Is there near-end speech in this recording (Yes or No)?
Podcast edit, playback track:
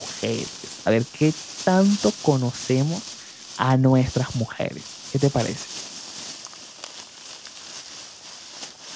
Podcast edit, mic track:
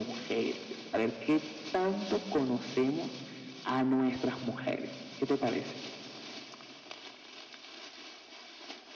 No